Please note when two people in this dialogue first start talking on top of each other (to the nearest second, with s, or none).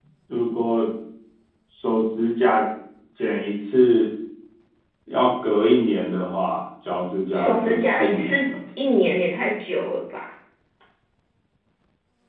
7 s